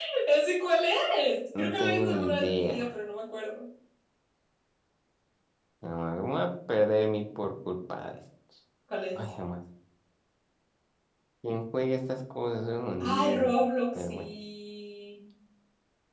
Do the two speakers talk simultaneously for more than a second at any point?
Yes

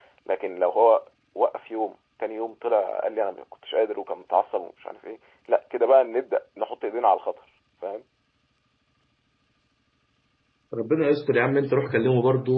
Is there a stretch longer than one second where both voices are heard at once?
No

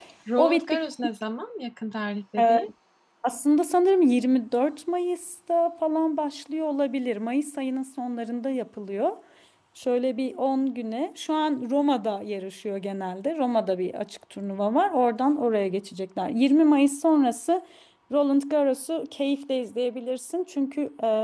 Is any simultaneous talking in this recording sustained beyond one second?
No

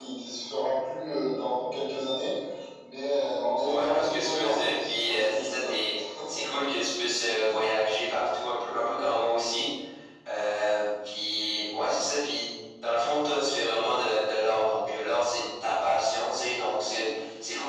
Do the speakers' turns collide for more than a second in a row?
Yes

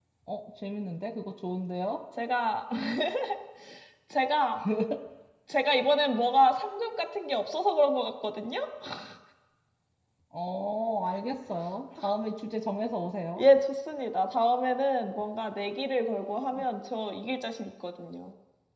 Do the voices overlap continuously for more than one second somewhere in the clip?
No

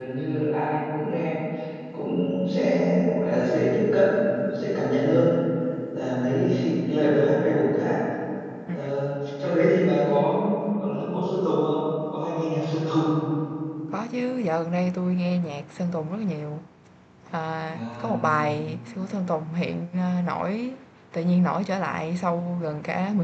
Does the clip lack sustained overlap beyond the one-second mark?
Yes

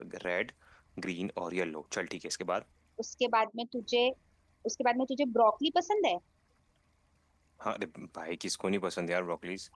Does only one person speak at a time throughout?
Yes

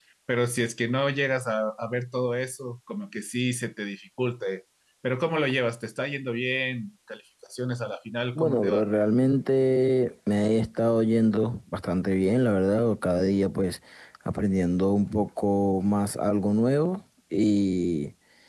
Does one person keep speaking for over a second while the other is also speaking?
No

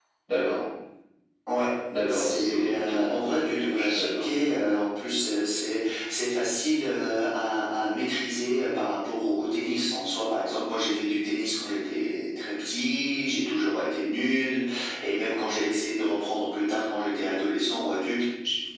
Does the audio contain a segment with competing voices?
Yes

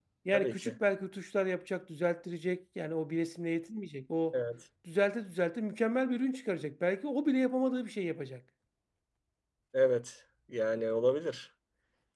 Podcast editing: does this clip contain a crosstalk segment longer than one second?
No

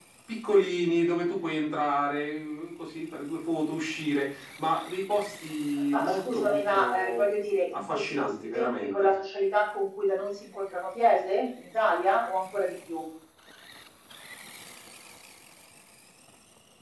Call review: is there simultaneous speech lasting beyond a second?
Yes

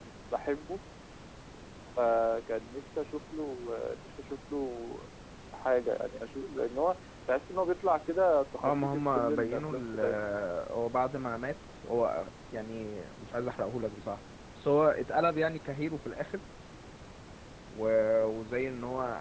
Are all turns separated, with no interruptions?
No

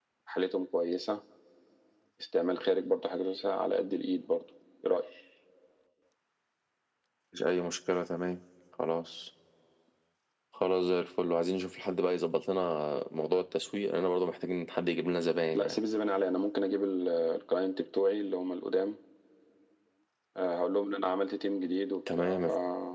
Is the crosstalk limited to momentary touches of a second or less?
Yes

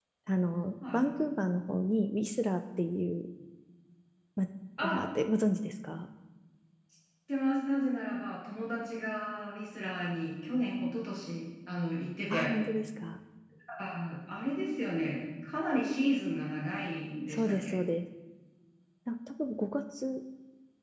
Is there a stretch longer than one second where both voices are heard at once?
No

